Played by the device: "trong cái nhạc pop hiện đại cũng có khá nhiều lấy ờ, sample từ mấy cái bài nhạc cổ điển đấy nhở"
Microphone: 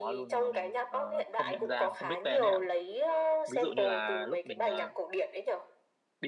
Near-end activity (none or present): present